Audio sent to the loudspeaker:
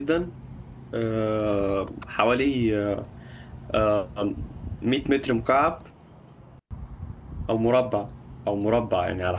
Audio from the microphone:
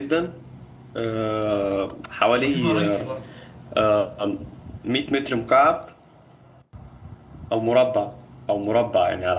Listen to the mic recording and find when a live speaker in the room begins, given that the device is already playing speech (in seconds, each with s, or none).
2.3 s